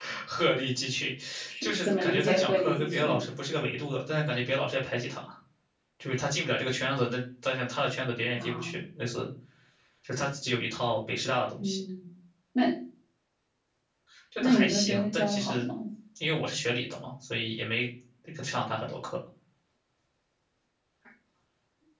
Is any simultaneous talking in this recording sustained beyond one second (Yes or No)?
Yes